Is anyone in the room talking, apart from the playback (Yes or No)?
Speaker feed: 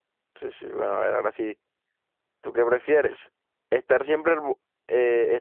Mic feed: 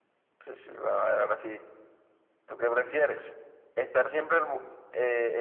No